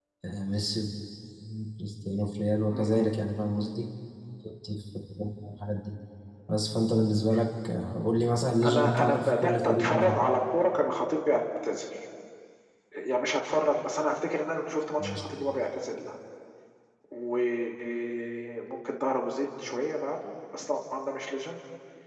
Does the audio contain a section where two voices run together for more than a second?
Yes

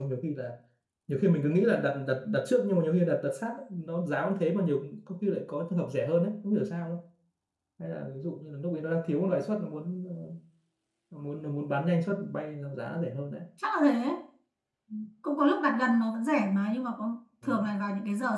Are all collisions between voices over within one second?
Yes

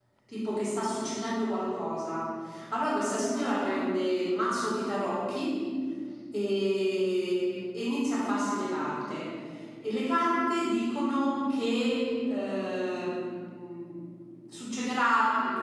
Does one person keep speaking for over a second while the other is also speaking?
No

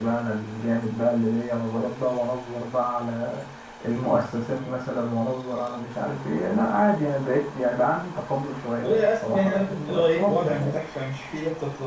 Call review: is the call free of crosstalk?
No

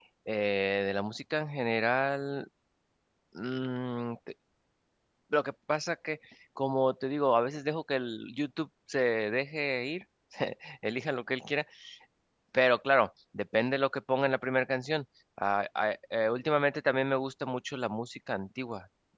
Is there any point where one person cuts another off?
No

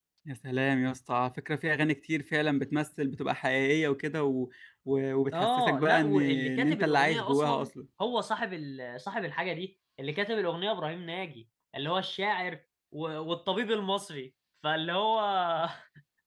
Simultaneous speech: Yes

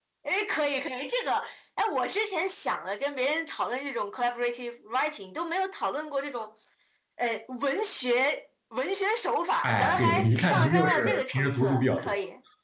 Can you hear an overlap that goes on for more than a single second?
Yes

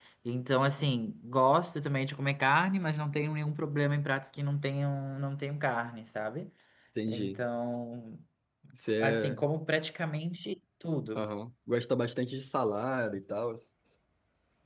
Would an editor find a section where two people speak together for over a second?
No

